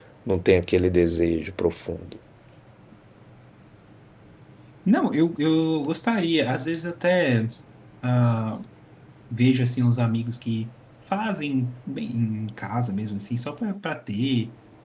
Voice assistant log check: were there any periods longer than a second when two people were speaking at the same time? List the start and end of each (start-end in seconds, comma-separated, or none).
none